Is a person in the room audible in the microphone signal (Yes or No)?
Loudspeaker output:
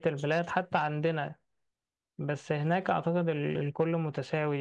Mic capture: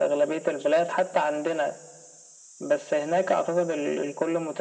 No